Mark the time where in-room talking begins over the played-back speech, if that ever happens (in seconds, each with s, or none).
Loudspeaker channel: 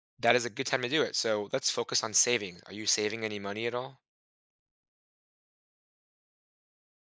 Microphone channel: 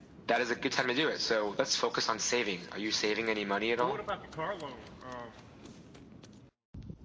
3.8 s